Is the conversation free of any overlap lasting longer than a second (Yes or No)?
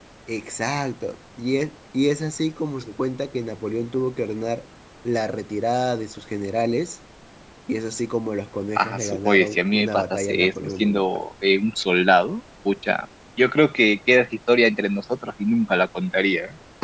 No